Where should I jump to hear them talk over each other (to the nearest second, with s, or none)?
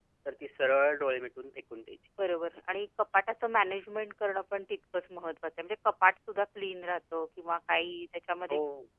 none